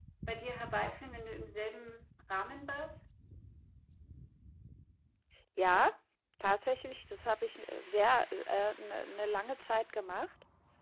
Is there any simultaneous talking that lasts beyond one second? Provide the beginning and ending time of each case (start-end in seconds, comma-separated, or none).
none